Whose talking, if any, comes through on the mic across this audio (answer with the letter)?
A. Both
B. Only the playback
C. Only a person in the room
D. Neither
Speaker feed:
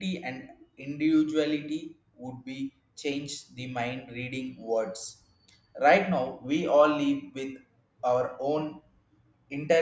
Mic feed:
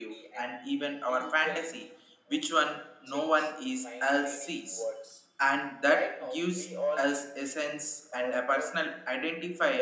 A